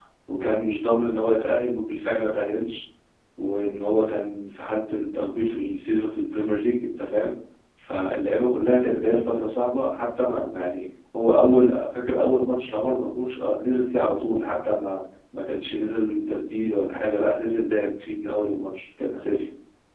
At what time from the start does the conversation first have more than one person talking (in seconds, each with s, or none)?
none